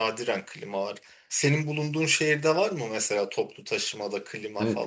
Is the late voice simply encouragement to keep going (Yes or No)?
No